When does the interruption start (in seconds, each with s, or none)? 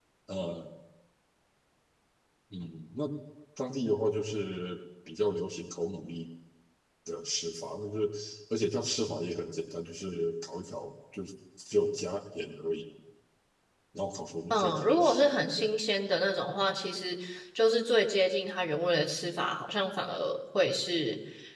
14.5 s